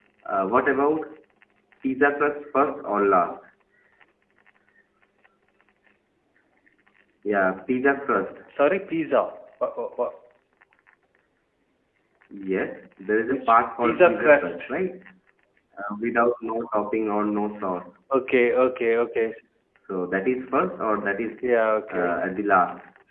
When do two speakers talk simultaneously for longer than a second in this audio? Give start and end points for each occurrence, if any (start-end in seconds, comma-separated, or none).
13.3-14.7